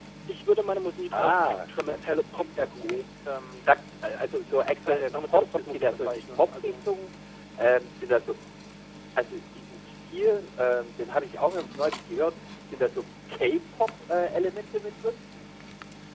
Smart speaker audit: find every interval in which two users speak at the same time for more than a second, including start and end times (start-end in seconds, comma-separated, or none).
1.1-3.0, 4.9-6.7